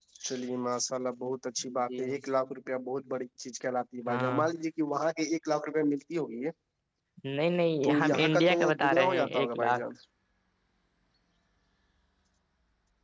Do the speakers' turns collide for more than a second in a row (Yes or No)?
Yes